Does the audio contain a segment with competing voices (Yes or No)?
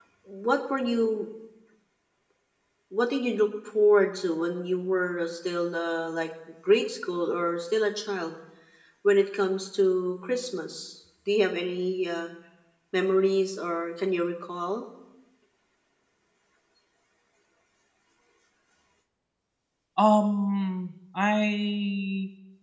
No